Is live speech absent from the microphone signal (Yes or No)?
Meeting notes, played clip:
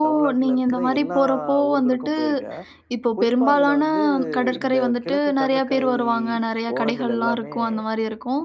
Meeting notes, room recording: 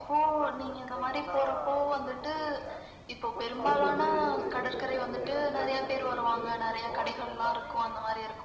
No